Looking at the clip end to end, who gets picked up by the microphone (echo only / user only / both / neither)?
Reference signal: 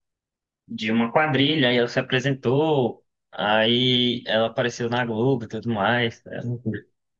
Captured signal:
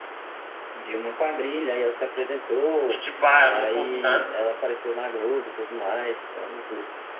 both